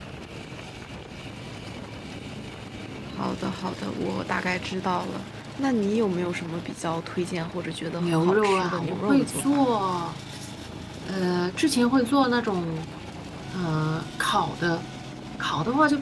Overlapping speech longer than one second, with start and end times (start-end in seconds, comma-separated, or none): 8.0-9.8